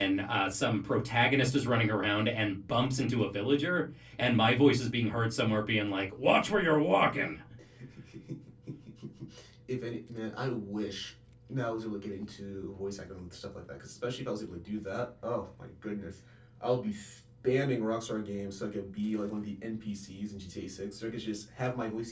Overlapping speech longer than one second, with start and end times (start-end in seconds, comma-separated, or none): none